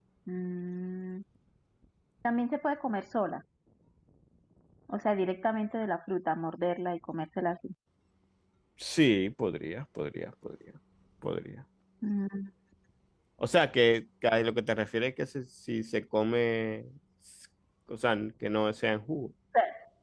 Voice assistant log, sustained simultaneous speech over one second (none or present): none